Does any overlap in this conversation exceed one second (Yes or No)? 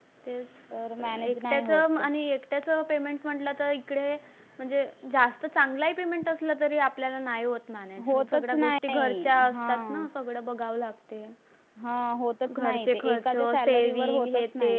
Yes